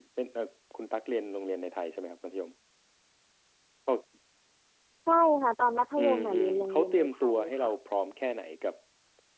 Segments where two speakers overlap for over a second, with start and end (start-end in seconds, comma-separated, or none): 6.0-7.7